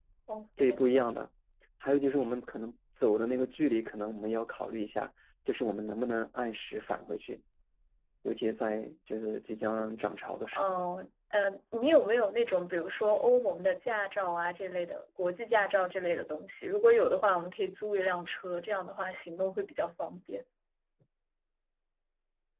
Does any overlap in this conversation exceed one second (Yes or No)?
No